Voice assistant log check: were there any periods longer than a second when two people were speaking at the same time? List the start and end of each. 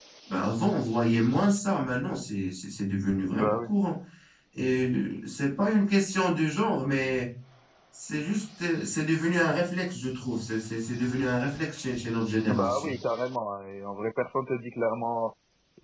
none

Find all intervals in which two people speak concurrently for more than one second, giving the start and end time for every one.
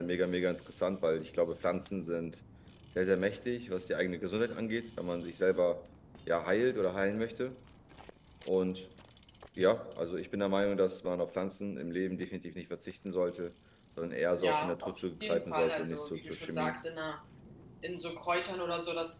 14.4-16.8

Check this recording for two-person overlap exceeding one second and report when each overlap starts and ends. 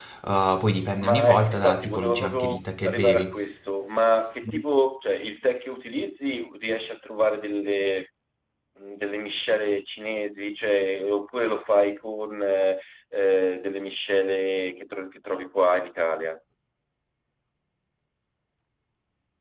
1.0-3.4

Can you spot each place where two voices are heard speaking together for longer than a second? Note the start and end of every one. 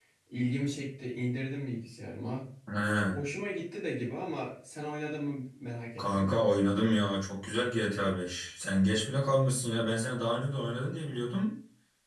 none

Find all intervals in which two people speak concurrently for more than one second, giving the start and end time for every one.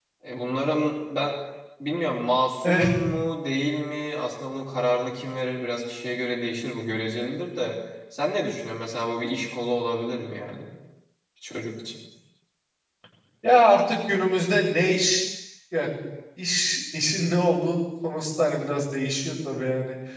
none

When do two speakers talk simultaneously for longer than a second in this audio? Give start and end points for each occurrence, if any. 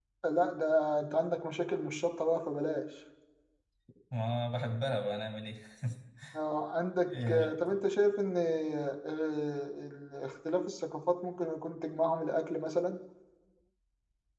none

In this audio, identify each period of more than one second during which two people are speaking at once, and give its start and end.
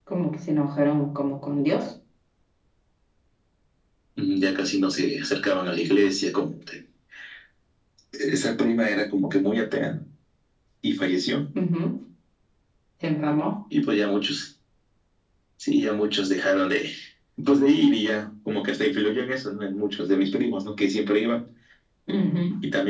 none

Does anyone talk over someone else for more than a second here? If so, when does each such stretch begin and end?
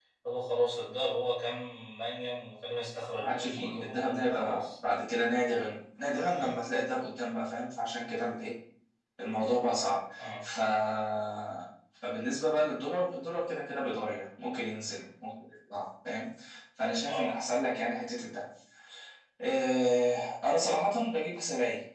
3.2-4.7

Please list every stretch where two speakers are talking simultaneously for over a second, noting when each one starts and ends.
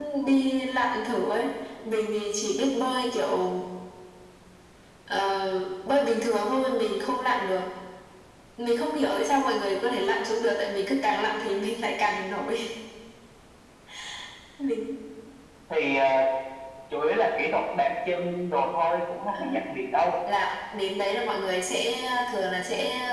none

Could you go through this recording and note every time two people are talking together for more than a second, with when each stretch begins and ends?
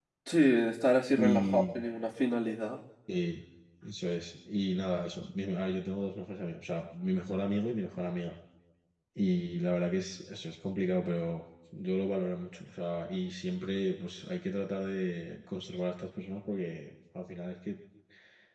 none

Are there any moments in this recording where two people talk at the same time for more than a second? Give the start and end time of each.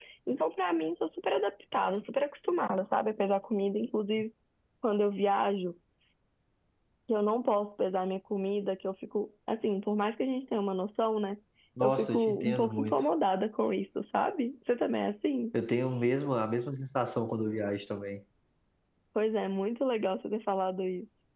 11.8-13.0

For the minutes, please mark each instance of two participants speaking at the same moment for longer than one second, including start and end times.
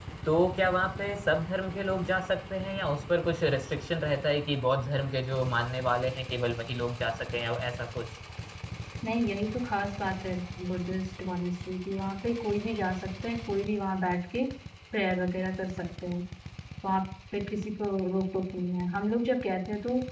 none

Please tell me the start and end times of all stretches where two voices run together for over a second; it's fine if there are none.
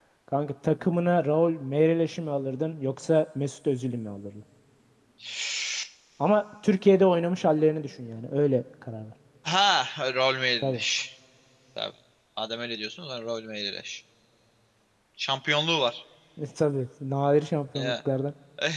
none

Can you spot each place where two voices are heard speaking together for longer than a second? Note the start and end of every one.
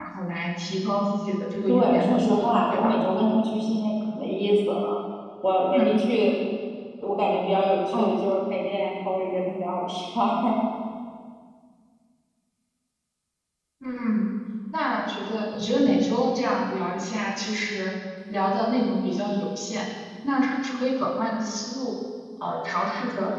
1.7-3.0

